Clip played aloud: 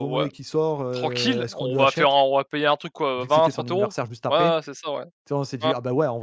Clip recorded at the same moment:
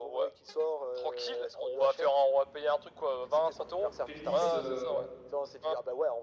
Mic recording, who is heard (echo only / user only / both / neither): both